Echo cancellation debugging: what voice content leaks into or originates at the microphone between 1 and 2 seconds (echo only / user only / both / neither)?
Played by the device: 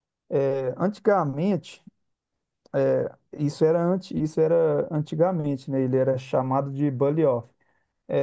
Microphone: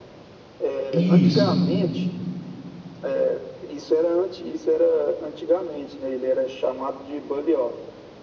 both